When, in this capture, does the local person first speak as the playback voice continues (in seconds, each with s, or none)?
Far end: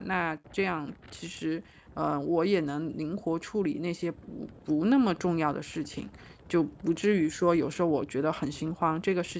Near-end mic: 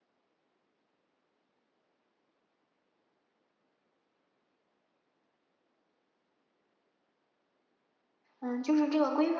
8.4 s